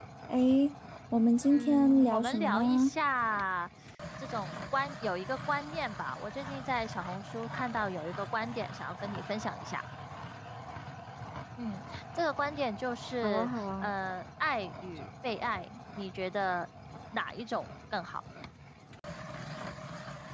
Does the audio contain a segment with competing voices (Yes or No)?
Yes